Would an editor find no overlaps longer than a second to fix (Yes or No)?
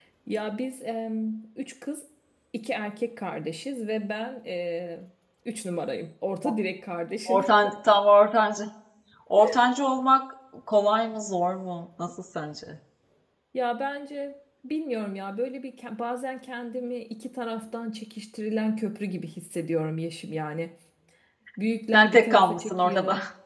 No